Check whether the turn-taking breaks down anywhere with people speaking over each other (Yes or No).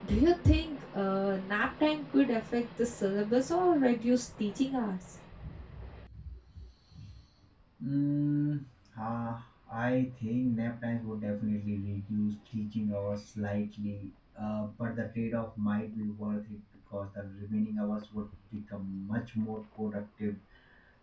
No